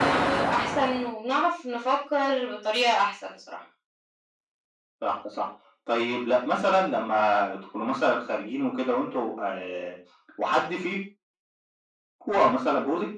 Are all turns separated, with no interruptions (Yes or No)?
Yes